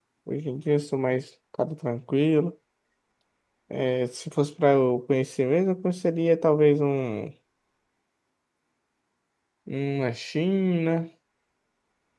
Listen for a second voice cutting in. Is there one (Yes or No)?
No